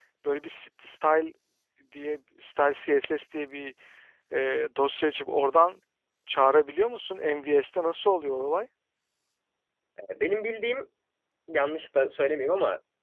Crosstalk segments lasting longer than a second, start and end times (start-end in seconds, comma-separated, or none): none